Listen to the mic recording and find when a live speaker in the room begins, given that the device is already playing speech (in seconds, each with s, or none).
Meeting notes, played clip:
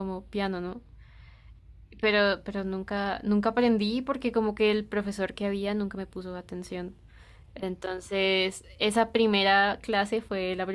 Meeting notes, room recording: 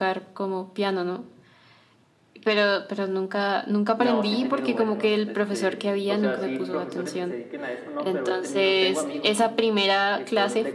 4.0 s